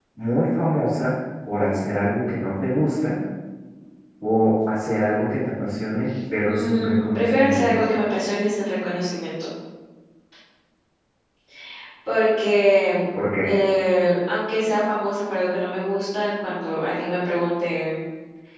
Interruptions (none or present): present